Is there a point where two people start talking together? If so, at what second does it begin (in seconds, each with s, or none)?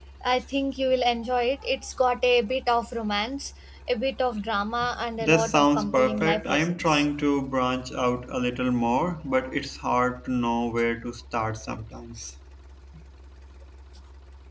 5.2 s